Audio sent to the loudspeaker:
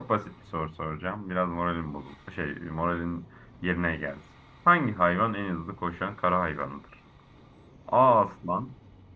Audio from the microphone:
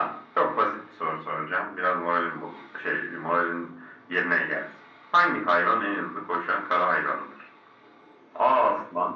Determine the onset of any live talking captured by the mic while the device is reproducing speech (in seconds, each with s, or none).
none